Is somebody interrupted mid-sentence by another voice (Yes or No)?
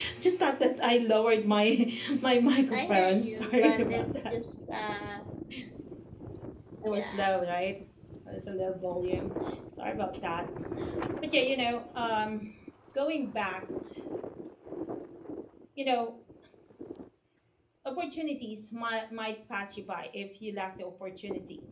Yes